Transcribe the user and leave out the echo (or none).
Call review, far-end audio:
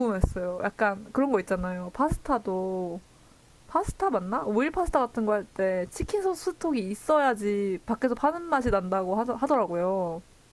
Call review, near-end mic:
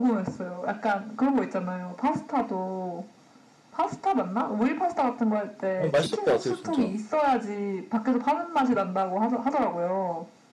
어, 맛있을 것 같아요, 진짜.